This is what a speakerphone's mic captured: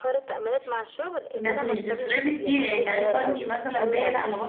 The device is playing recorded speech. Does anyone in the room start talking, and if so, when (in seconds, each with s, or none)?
1.4 s